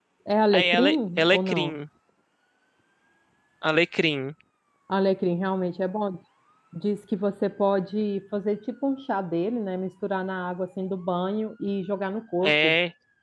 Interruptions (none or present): present